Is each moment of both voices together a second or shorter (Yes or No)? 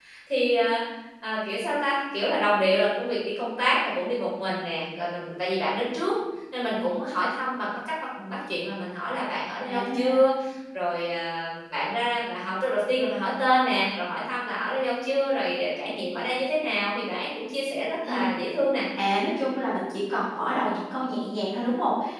Yes